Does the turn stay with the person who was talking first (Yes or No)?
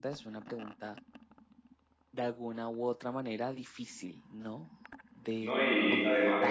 No